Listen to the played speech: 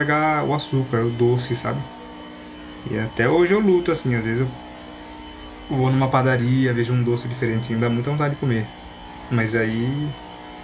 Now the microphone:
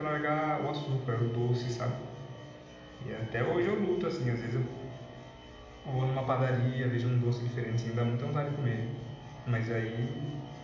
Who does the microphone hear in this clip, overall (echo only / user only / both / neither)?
echo only